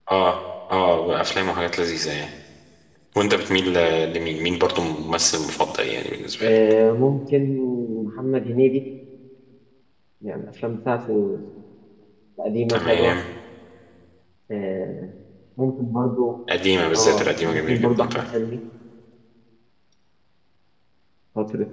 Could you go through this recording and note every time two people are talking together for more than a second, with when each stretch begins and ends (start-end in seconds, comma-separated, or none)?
17.0-18.2